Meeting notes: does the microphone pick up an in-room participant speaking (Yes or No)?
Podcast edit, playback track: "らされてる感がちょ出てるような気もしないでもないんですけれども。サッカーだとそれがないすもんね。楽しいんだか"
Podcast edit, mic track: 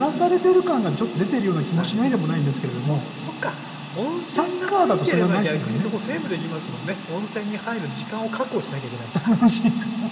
Yes